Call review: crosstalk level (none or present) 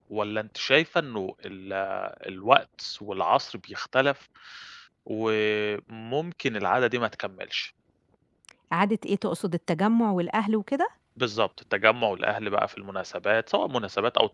none